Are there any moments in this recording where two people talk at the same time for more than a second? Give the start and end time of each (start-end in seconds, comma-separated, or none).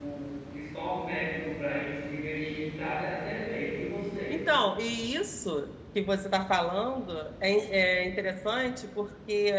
none